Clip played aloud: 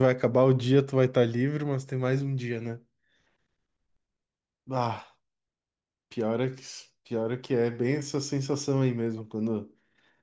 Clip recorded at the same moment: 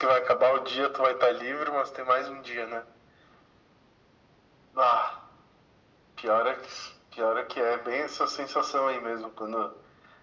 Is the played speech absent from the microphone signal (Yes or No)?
No